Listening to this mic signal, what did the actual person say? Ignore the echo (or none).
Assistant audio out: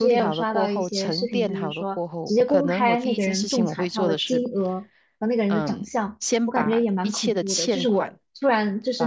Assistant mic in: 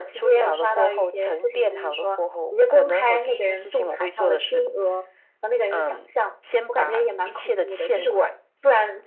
none